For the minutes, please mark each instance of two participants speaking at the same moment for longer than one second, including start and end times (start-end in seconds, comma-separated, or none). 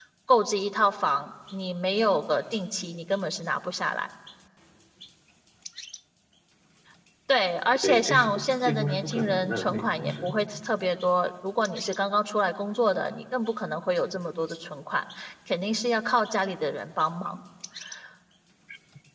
7.8-10.3